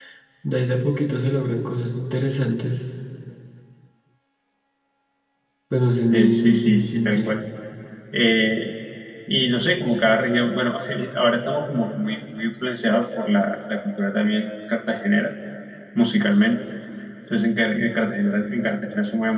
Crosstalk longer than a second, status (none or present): present